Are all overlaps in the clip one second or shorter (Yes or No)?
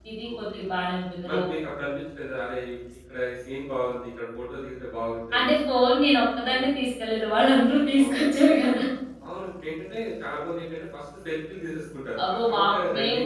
Yes